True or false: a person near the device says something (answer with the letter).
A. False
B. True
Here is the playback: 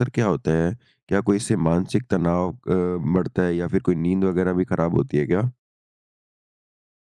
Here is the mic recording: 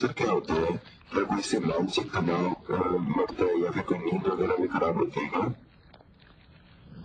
A